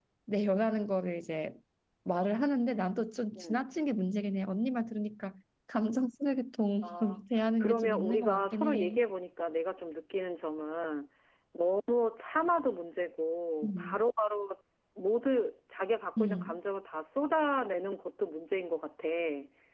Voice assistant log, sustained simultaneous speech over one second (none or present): present